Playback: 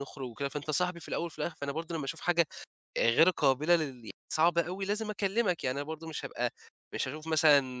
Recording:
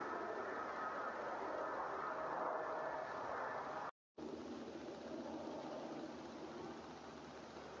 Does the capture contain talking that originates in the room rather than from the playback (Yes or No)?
No